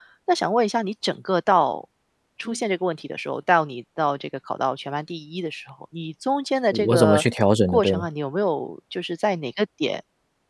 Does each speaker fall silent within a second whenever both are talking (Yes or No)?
Yes